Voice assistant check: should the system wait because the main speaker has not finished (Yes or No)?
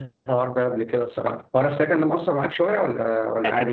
No